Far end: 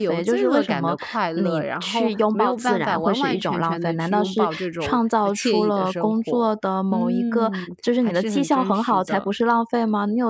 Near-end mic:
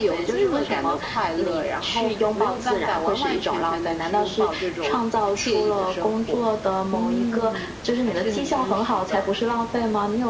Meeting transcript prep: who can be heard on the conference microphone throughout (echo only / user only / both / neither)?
echo only